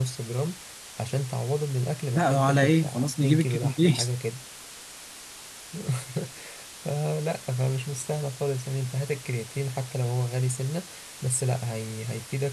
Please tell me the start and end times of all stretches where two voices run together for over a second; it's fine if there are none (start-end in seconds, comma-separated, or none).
2.1-4.1